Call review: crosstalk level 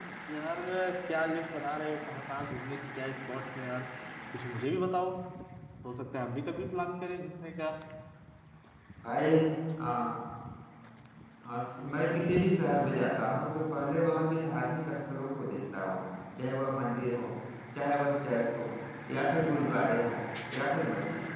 none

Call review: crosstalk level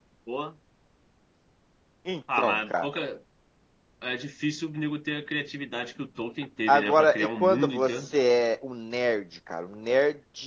present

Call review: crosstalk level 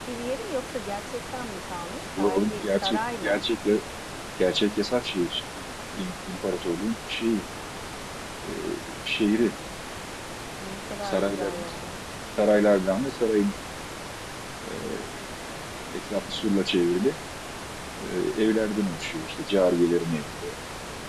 present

